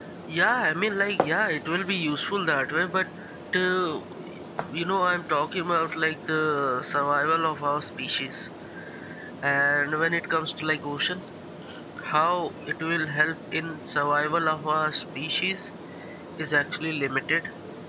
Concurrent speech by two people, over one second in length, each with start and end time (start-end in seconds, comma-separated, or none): none